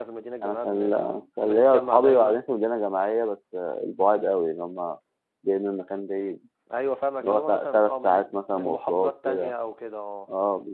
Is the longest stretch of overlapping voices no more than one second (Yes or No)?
No